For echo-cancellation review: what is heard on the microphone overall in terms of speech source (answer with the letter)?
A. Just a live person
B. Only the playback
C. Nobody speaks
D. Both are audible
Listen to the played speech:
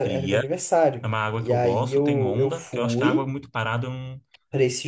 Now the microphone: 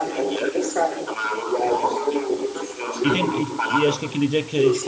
D